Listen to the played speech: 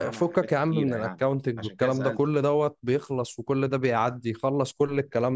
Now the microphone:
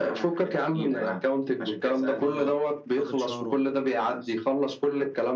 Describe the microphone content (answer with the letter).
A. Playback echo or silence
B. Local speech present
B